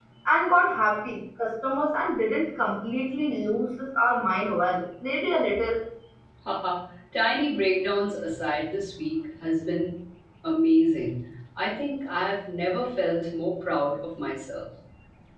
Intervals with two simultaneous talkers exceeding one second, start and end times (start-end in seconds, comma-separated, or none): none